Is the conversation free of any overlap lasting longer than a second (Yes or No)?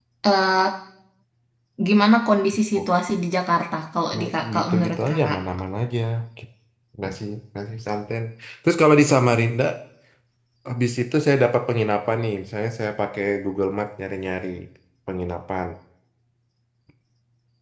No